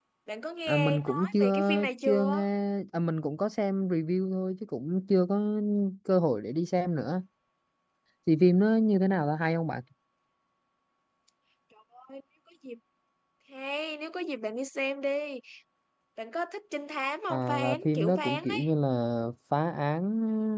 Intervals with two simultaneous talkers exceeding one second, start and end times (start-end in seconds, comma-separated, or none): 0.7-2.5, 17.3-18.6